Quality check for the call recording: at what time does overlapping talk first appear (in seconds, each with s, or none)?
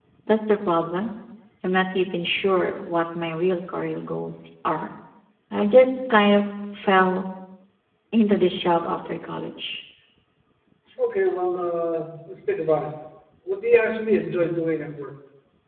none